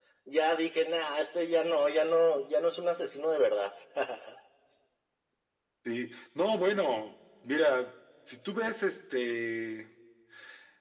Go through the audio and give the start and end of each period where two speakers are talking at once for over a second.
none

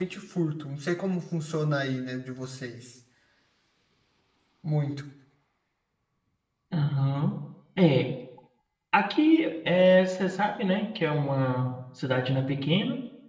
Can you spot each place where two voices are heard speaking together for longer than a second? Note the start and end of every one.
none

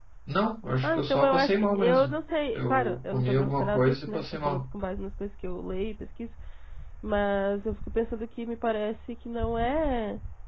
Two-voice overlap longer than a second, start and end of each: 0.8-2.2, 2.6-4.6

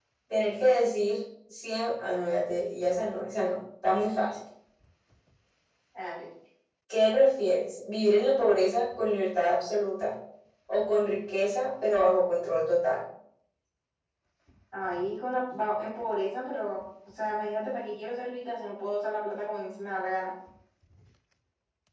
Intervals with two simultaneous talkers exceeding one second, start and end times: none

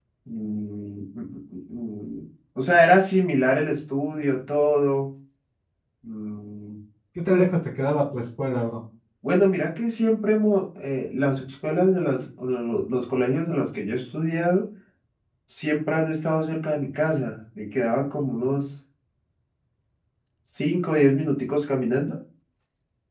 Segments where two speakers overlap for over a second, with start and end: none

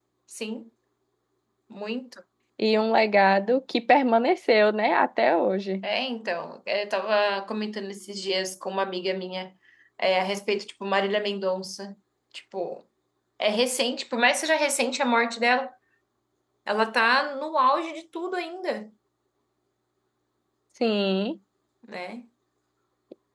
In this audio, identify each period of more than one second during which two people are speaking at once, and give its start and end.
none

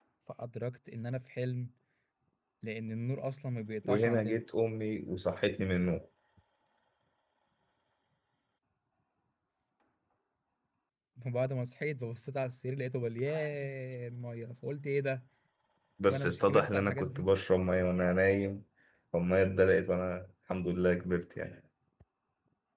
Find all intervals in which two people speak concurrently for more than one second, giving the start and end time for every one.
16.1-17.3

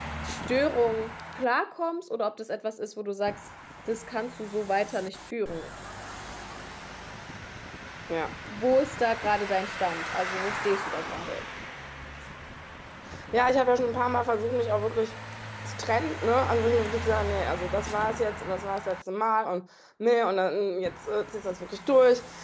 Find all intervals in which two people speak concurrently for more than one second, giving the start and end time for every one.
none

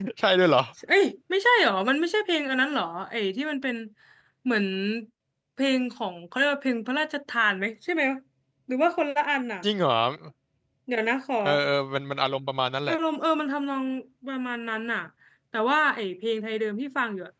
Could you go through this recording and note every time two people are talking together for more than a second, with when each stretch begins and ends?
none

